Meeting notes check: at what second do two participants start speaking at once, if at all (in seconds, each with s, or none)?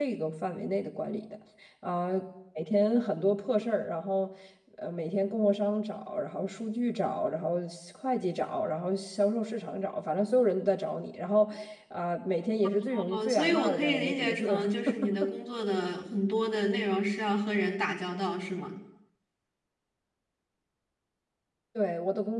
12.8 s